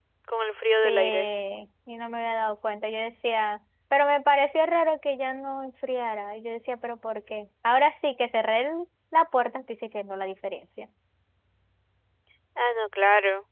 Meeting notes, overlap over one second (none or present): none